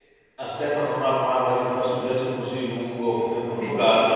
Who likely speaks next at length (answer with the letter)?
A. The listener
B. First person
B